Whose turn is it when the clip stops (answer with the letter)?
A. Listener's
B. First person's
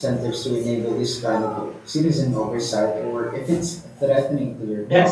A